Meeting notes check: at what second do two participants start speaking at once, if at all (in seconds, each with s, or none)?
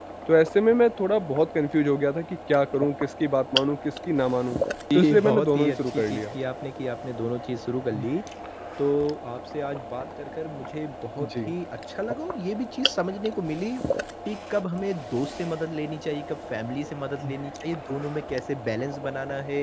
4.9 s